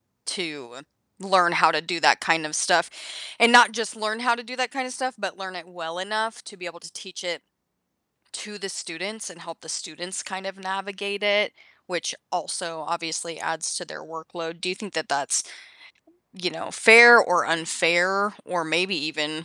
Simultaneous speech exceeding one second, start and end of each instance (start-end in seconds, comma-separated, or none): none